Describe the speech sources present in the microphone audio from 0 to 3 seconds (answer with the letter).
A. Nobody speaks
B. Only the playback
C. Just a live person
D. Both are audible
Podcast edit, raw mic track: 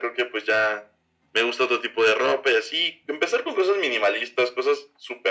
B